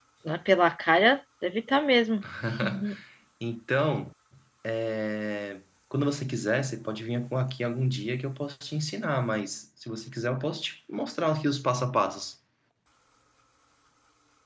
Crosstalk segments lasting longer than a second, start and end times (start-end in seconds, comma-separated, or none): none